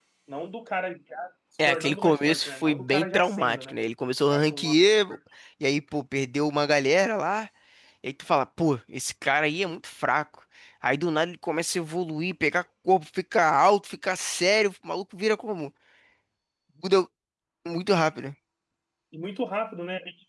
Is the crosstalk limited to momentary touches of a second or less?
No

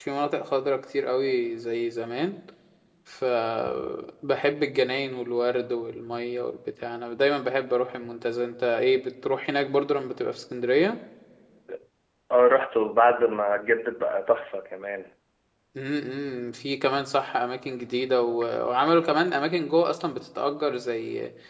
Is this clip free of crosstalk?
Yes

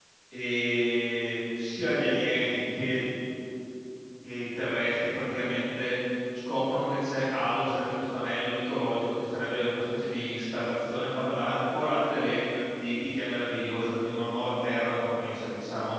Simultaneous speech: No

